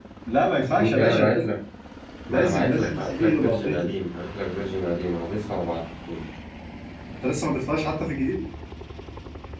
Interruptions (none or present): present